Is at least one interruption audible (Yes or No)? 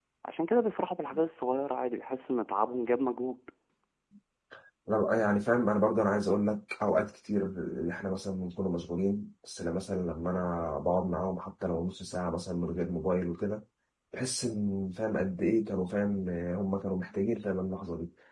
No